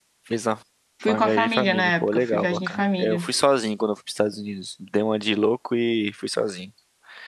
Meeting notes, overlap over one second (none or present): present